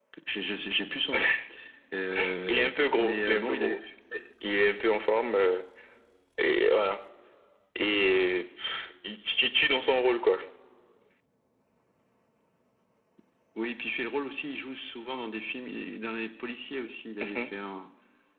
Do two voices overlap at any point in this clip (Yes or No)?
Yes